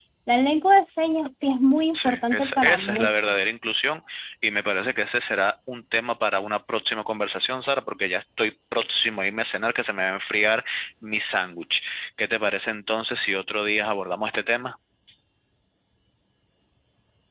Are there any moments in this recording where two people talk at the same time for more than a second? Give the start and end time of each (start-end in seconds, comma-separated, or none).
1.9-3.4